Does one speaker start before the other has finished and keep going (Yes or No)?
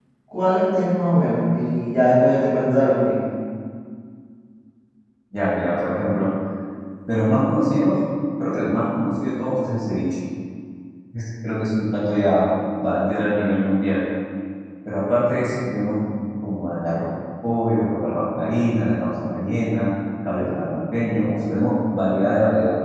No